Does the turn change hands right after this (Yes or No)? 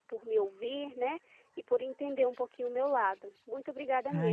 Yes